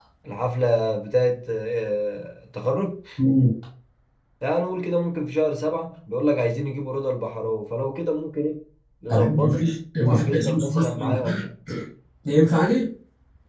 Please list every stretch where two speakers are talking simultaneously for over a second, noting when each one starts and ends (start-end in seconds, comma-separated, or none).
10.0-11.4